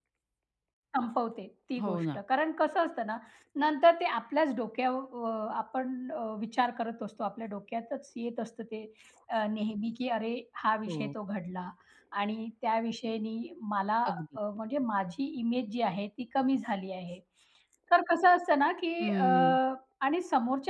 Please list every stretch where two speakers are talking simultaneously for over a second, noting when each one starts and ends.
none

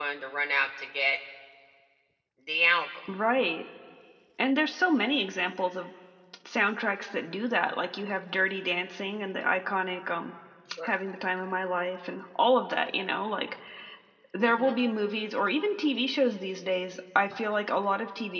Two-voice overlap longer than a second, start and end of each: none

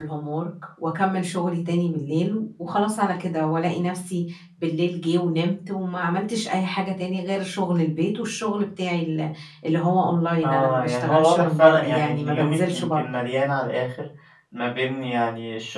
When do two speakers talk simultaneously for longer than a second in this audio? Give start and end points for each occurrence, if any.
10.4-13.1

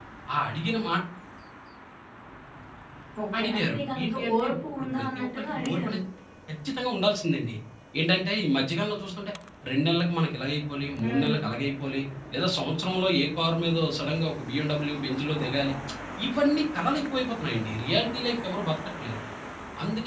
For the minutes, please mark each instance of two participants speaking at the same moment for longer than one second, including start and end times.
3.4-6.0

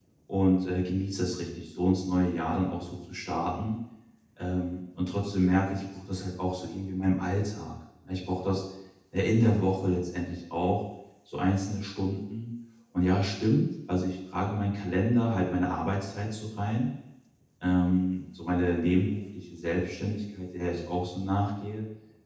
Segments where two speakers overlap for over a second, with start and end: none

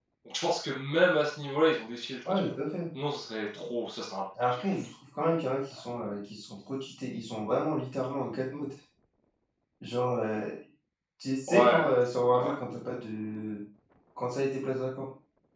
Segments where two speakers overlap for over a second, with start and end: none

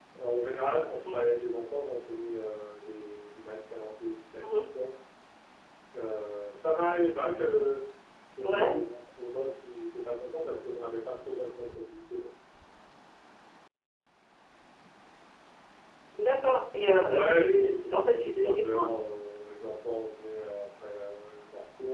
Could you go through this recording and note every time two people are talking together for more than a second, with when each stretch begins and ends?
17.1-18.9

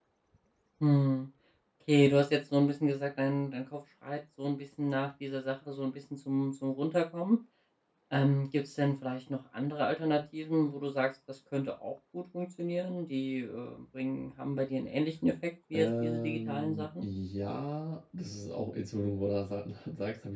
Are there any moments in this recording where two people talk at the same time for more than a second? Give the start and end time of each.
15.8-17.1

